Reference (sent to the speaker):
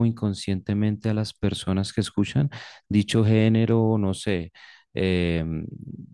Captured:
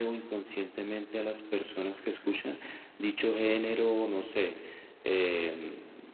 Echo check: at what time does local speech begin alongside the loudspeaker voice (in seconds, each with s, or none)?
none